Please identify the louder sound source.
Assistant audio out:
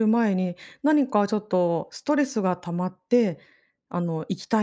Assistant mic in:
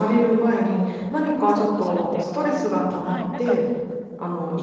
echo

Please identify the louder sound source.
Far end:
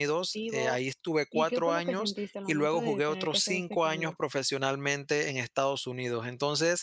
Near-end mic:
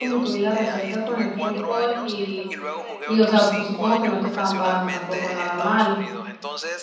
user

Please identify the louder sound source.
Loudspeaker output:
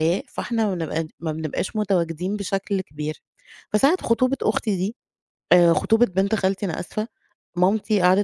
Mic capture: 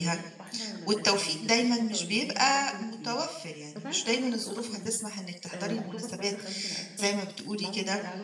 user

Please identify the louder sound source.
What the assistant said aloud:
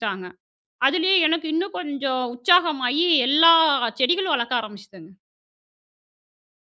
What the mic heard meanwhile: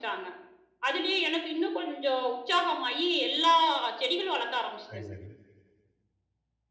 echo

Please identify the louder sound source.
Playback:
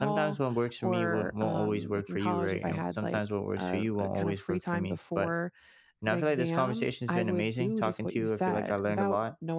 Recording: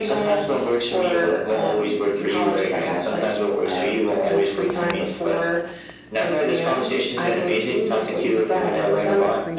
echo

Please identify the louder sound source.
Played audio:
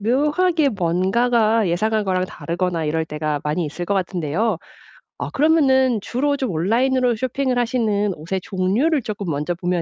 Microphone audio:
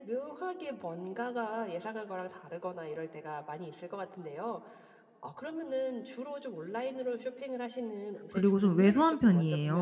user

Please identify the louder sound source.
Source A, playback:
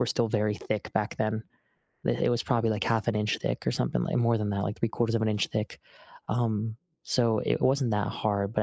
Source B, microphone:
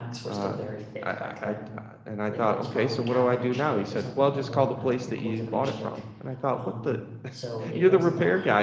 user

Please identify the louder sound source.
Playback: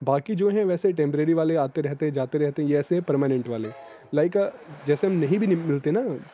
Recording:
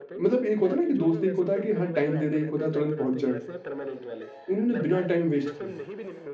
user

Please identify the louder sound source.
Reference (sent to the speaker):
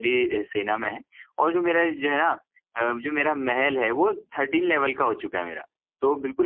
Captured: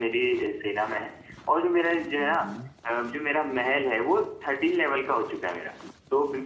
echo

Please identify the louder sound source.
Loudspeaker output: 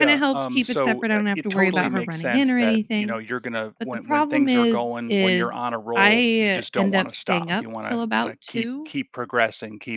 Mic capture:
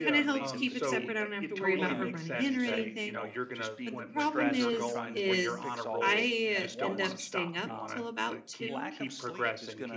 echo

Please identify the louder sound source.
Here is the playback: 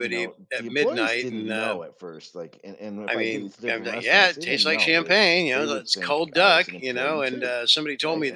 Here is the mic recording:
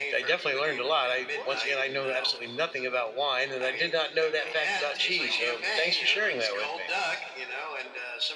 user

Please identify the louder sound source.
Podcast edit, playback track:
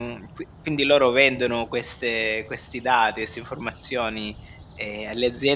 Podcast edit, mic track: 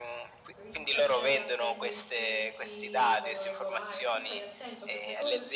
echo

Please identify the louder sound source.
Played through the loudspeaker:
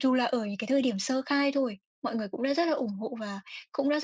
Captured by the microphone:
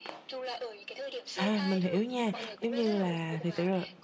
user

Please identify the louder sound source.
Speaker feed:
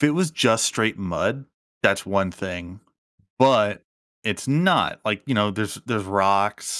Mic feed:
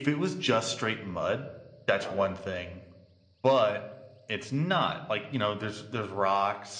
echo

